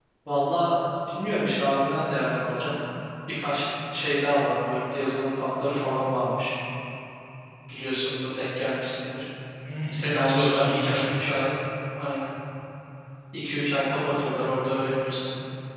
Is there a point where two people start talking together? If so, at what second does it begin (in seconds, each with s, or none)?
9.9 s